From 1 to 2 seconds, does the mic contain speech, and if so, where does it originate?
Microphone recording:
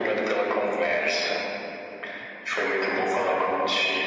echo only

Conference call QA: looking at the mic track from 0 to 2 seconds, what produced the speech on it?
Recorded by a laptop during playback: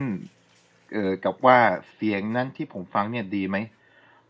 user only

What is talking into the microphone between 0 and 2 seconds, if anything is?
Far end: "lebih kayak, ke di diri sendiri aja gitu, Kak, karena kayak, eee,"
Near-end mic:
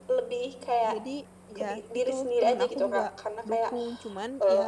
both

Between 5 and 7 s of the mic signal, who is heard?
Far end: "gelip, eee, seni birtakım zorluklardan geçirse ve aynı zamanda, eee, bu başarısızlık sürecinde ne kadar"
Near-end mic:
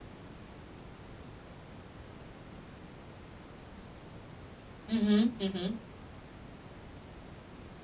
user only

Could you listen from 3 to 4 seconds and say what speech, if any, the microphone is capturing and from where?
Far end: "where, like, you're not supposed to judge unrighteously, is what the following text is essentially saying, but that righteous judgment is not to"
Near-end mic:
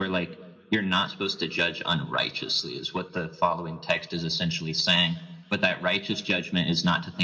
echo only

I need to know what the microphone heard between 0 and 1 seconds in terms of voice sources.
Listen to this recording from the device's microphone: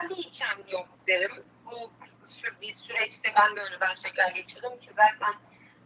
echo only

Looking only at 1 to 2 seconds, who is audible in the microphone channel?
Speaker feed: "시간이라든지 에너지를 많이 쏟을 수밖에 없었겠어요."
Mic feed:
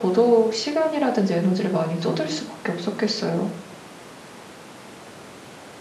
echo only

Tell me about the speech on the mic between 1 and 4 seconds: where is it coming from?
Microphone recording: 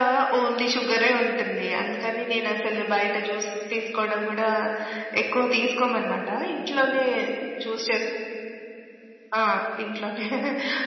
echo only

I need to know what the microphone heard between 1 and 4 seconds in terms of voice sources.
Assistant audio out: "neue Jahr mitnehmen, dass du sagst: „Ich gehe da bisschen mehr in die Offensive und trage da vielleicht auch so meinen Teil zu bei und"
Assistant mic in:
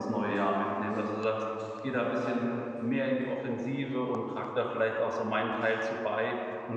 echo only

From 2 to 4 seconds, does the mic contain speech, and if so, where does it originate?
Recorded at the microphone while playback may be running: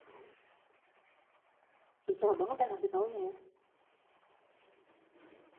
user only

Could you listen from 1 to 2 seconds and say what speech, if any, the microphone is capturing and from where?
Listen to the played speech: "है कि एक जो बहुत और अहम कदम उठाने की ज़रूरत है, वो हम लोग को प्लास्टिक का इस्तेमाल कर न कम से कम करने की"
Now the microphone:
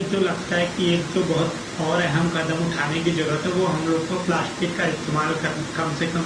echo only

